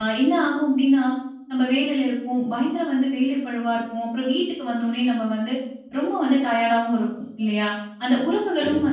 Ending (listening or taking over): listening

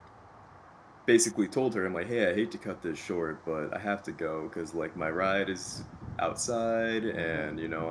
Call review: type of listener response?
listening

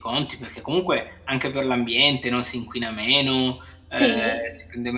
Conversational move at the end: listening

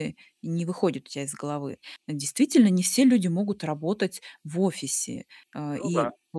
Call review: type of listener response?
listening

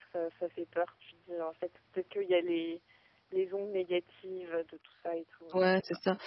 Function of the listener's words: taking over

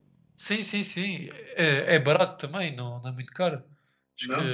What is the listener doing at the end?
listening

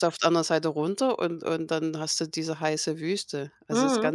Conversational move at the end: taking over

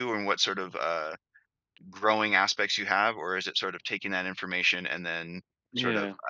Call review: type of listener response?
listening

